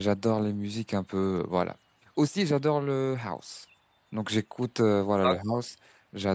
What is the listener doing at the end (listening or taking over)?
listening